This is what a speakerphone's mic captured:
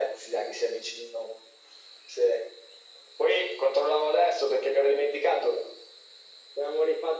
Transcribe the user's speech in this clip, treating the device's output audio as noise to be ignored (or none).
none